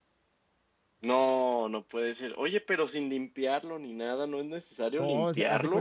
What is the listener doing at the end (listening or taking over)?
taking over